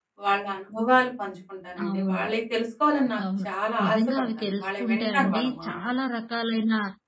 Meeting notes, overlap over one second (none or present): present